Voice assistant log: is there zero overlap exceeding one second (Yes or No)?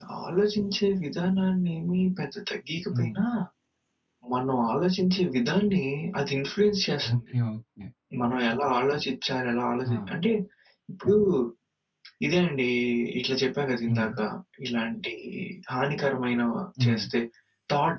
Yes